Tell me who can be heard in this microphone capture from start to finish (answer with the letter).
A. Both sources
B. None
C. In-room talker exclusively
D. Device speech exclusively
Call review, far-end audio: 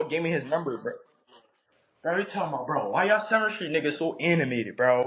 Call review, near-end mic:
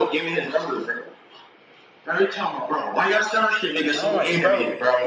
A